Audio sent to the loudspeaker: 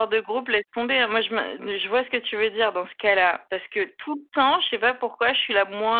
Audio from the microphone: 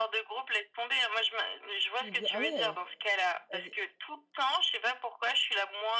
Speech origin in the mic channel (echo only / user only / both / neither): both